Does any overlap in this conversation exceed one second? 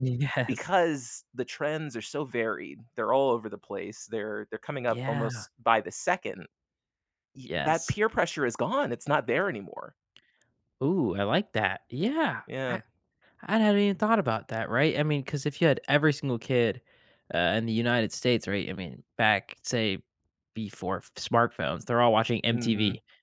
No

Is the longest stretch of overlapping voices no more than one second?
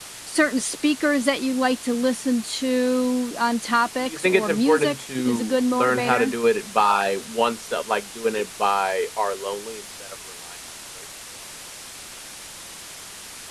No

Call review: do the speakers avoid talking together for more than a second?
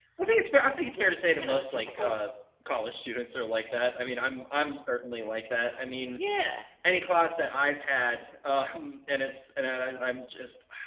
No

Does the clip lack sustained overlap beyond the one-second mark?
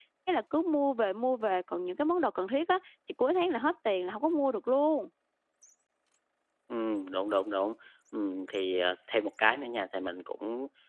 Yes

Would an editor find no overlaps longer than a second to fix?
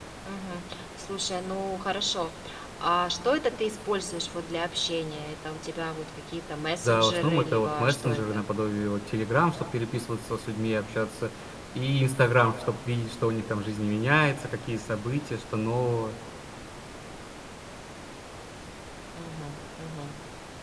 No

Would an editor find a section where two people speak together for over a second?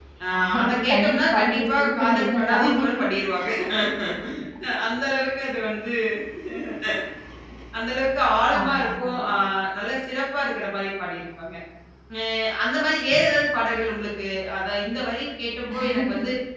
Yes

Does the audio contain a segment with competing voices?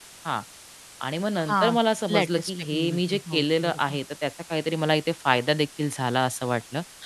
Yes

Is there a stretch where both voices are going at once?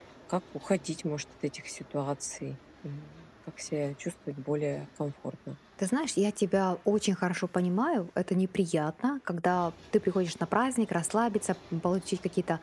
No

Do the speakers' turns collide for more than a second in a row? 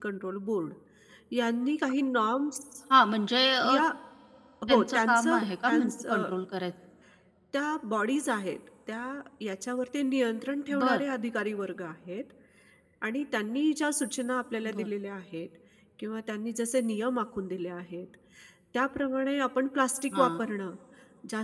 Yes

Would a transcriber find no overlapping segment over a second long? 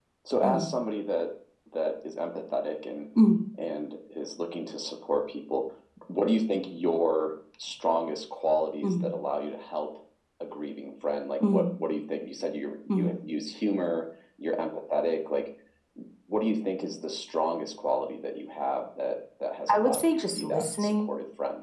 No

